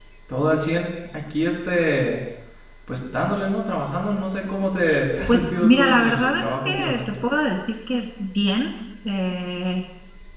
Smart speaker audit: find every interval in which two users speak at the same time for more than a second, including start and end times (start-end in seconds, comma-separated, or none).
5.3-7.2